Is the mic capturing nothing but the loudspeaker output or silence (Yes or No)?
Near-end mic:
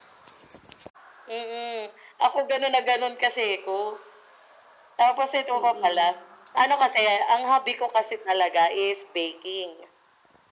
No